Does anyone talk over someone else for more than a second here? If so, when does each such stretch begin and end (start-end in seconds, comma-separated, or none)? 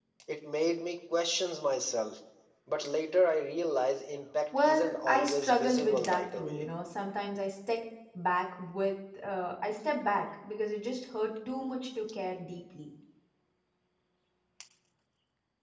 4.7-6.6